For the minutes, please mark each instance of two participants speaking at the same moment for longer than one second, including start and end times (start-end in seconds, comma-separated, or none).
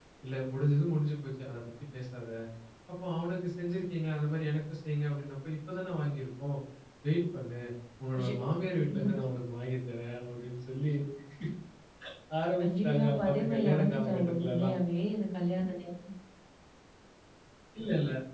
12.6-14.7